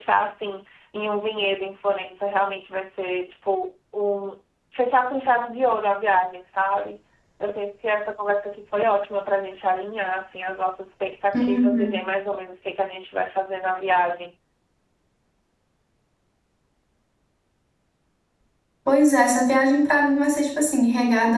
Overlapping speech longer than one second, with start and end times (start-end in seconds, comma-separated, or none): none